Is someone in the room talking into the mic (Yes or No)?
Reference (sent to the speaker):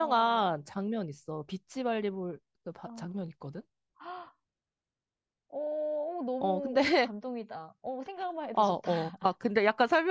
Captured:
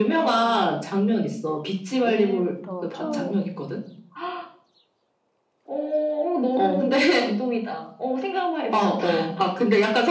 Yes